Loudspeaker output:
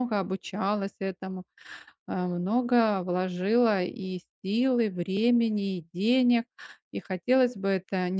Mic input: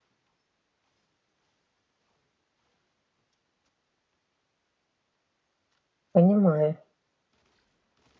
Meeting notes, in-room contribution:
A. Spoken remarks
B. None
A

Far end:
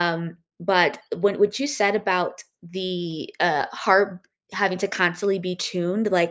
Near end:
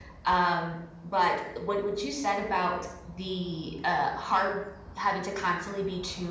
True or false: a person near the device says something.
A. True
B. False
B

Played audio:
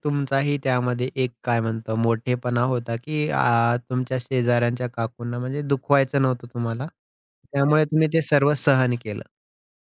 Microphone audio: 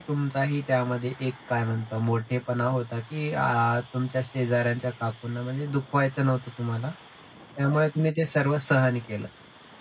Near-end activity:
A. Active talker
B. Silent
B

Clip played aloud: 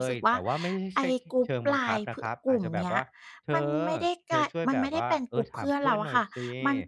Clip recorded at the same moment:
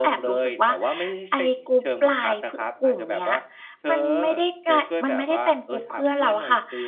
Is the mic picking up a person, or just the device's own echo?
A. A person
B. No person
B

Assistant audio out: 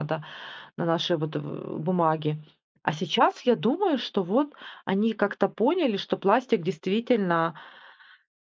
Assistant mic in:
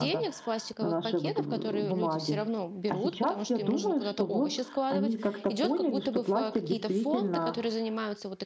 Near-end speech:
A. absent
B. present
B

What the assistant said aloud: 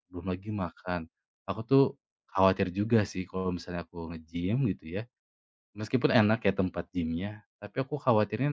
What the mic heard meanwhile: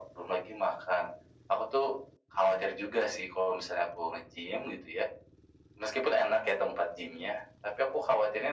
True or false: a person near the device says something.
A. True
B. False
B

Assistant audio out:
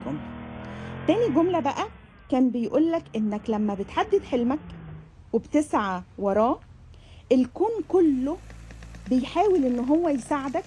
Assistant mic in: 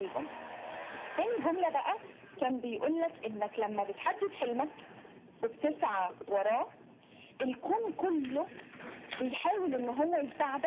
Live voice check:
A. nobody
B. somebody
A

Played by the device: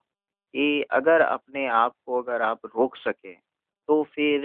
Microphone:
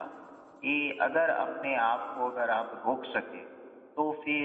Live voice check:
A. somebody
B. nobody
B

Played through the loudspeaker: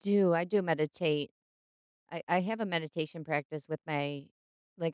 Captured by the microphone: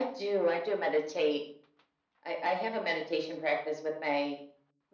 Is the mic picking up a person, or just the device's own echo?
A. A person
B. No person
B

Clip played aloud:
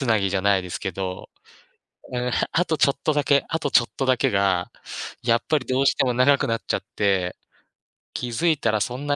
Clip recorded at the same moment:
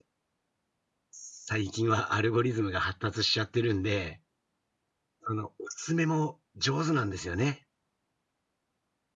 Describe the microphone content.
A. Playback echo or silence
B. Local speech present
B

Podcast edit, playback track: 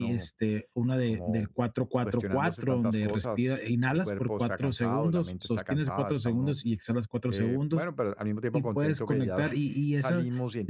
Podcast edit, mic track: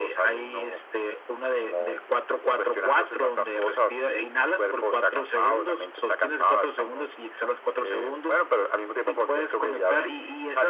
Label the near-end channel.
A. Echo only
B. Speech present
A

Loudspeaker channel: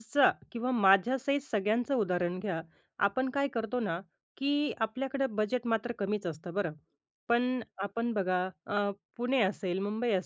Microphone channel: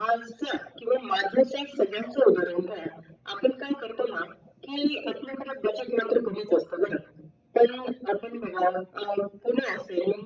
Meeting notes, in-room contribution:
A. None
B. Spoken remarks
A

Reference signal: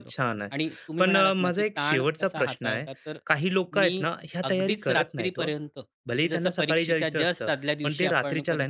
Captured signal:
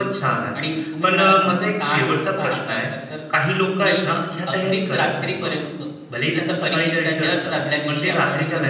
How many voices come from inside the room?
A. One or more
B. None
B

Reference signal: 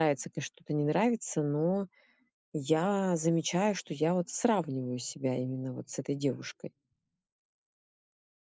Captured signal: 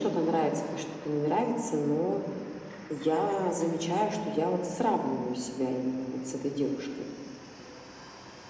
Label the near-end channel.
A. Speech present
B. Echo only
B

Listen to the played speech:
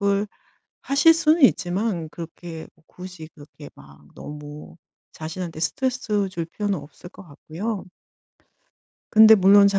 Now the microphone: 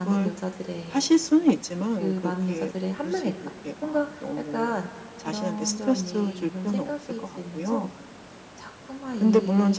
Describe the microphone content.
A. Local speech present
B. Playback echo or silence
A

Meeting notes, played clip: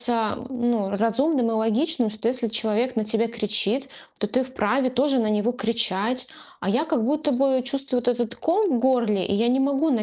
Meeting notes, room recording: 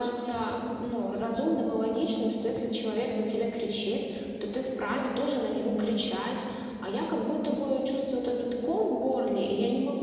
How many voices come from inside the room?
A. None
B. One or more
A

